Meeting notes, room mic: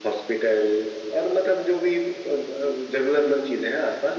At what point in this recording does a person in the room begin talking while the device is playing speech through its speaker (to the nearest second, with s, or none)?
none